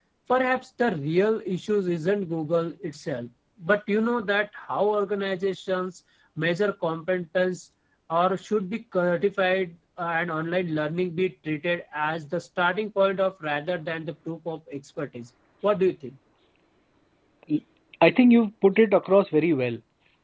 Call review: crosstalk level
none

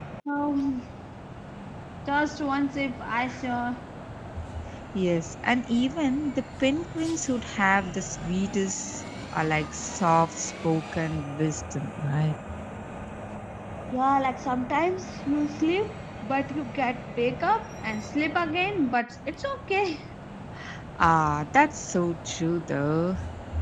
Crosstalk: none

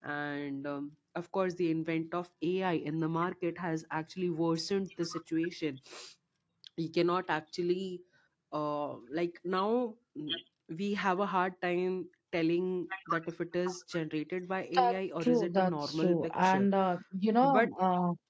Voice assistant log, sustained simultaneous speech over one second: present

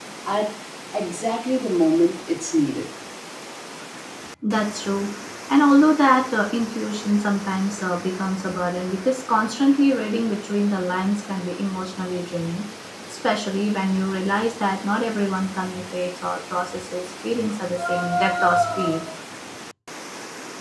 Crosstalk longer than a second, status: none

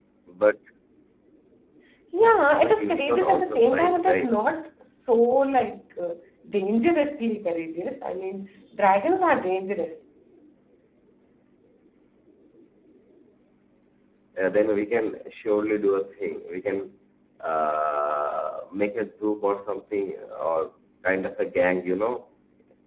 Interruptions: present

